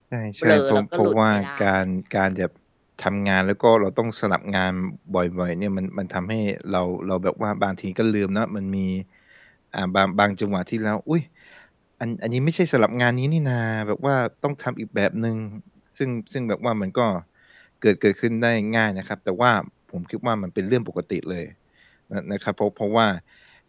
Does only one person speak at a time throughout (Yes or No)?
No